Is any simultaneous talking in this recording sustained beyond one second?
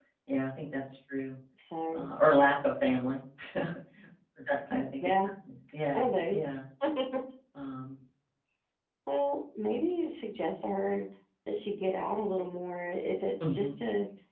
No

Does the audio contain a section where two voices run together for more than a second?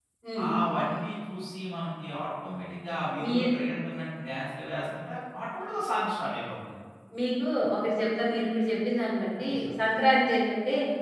No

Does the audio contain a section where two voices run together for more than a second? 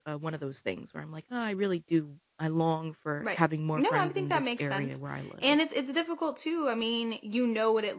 Yes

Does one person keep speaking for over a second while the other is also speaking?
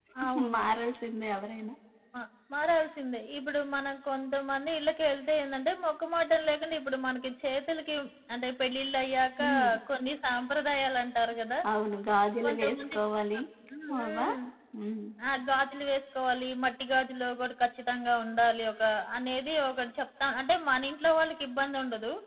No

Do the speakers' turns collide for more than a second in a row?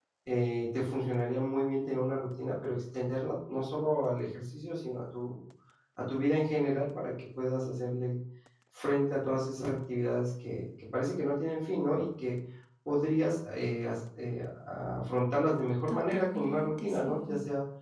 Yes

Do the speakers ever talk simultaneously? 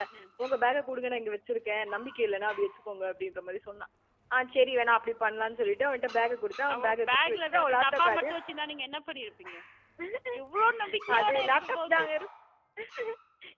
Yes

